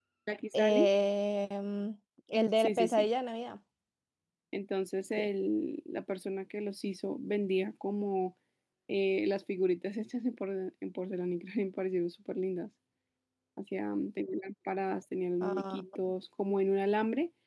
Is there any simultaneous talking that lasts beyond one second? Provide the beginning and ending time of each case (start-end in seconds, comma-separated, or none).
none